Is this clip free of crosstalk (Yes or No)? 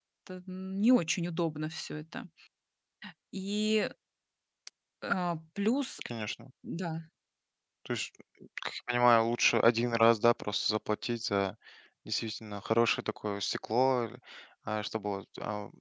Yes